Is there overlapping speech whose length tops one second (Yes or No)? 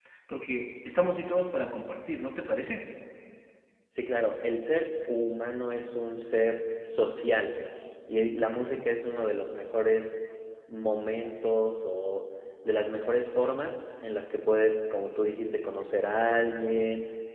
No